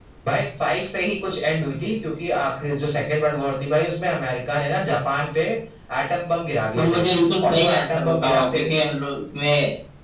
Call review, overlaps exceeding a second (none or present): present